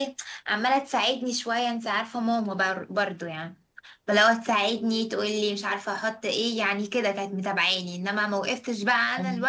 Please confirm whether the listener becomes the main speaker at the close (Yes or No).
No